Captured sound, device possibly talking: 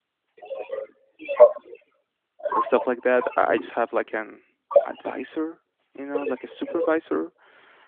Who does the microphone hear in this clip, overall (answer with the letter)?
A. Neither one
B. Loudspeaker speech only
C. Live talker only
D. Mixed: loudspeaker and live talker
D